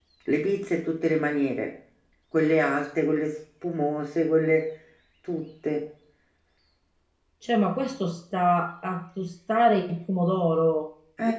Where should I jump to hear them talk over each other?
none

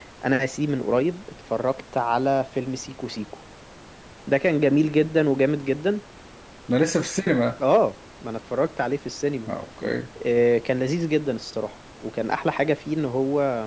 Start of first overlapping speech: none

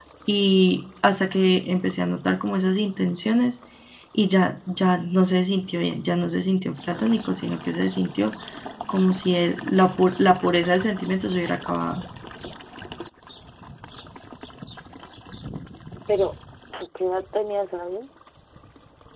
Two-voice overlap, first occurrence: none

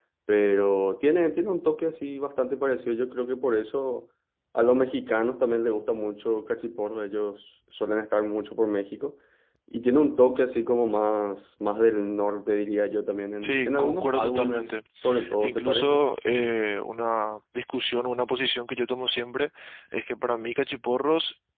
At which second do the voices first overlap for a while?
13.4 s

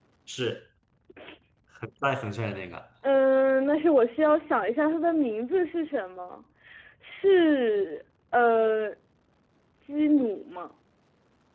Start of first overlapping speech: none

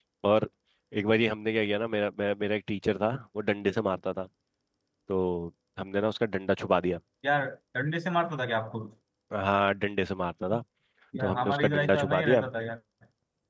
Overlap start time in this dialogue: 11.2 s

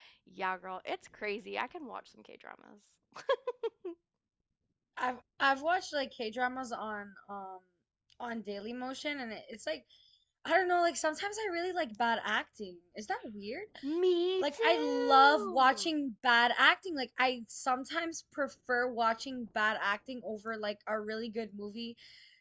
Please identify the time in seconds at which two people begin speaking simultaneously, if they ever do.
14.4 s

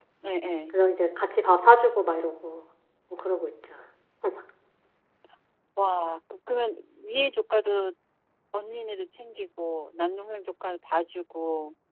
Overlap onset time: none

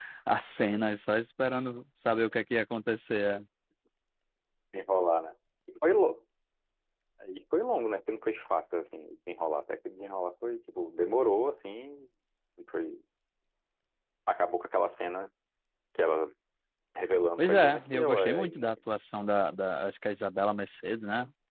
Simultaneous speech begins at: 17.4 s

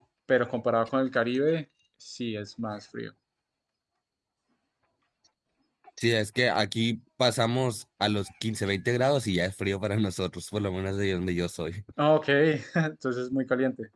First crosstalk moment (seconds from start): none

